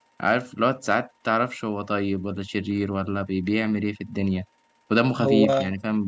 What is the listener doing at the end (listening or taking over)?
listening